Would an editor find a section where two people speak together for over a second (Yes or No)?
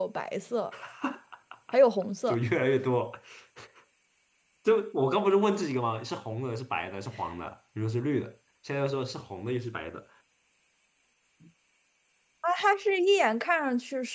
No